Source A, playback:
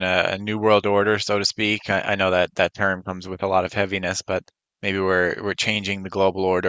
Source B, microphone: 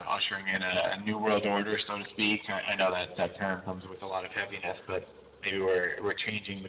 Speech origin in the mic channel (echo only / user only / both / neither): echo only